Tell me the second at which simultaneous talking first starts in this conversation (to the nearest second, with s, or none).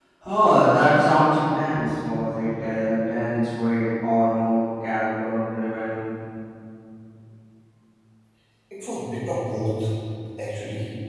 none